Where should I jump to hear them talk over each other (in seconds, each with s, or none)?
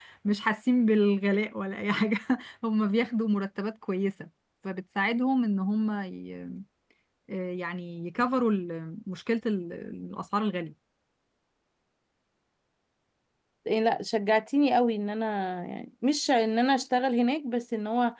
none